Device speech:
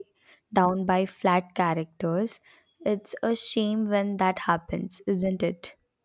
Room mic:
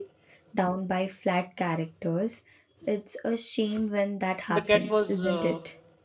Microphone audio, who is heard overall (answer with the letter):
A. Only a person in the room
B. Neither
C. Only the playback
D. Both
D